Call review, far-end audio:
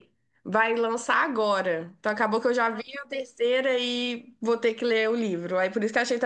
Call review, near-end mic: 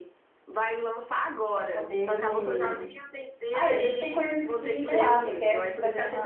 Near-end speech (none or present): present